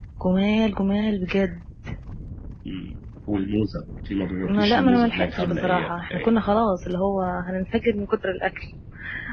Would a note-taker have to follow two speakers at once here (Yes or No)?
Yes